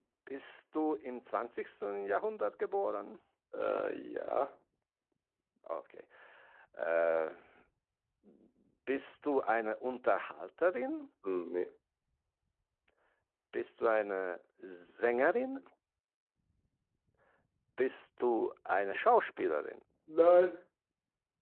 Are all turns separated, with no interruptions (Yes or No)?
Yes